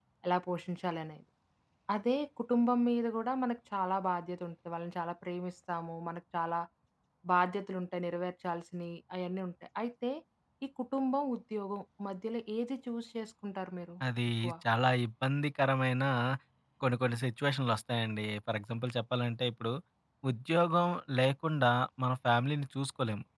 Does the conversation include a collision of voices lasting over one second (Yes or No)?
No